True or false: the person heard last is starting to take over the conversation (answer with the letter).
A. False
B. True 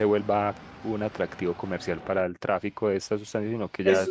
A